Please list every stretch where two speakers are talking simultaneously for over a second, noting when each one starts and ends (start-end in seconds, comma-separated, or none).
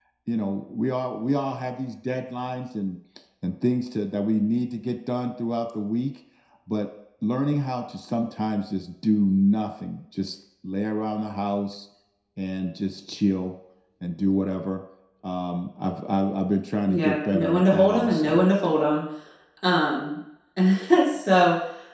16.9-18.4